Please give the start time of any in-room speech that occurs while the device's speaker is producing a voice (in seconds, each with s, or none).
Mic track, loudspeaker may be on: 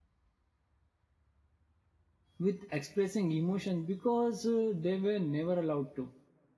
2.4 s